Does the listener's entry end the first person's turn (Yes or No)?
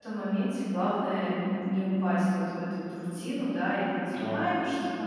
No